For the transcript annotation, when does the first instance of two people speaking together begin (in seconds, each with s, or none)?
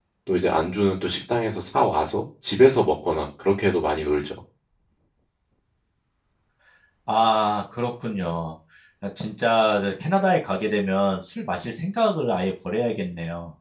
none